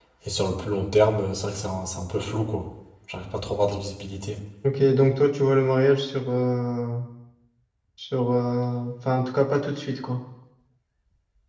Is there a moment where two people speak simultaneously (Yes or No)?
No